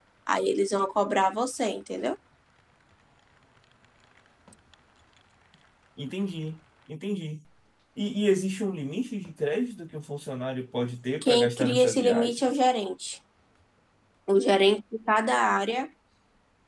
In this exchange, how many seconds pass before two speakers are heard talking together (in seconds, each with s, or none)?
11.2 s